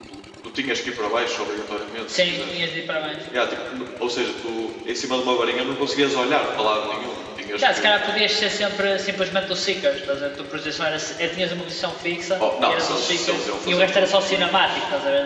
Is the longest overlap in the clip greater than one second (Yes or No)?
Yes